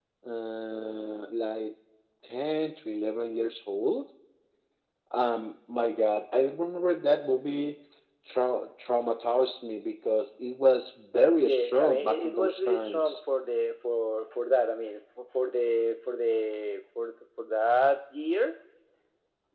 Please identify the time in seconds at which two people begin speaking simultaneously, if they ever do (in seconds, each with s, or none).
11.4 s